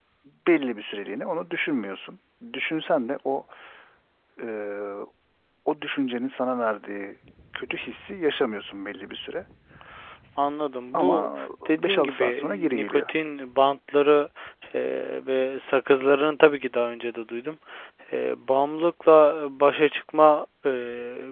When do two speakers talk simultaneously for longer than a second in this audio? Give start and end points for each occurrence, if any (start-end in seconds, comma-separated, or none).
11.7-13.1